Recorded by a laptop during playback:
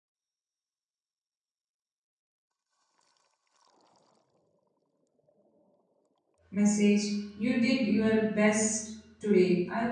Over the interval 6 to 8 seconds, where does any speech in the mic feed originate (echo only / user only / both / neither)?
user only